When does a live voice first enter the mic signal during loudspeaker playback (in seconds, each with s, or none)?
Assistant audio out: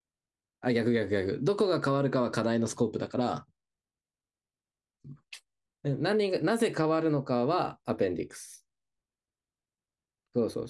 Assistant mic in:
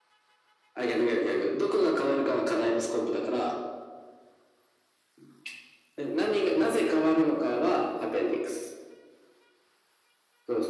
none